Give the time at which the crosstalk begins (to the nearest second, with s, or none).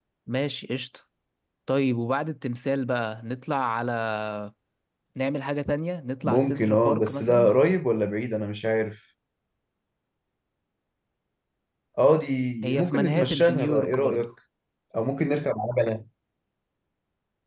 6 s